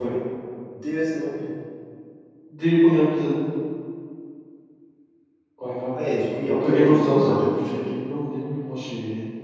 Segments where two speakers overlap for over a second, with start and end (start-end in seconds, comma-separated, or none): 6.5-7.9